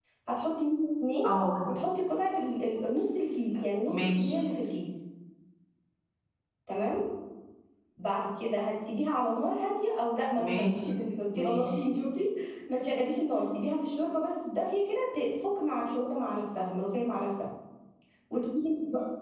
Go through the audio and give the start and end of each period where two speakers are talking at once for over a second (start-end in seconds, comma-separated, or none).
none